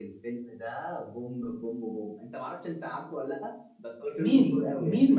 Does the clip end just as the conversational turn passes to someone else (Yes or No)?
Yes